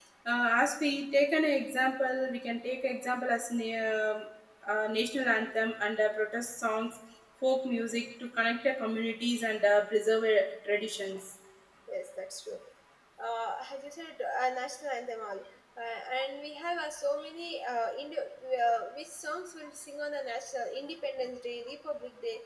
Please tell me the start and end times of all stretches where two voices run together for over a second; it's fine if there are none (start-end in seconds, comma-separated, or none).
none